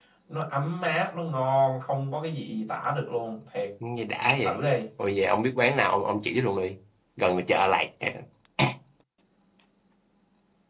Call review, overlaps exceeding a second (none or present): none